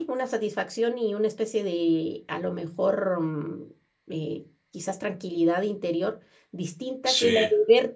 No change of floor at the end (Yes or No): Yes